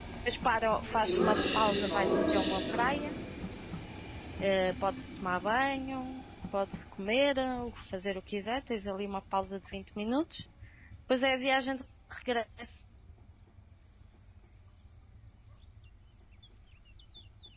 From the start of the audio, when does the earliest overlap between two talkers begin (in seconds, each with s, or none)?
1.1 s